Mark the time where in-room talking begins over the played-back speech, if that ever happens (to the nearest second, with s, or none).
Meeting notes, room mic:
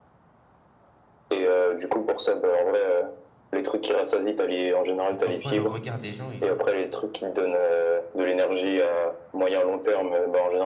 5 s